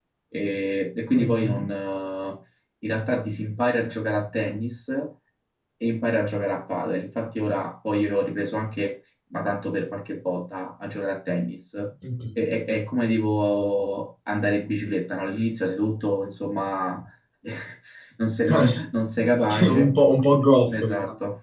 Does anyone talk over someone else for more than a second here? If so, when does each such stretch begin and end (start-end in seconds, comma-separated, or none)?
none